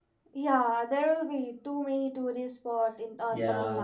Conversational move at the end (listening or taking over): taking over